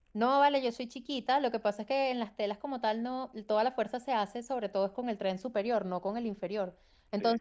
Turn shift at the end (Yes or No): No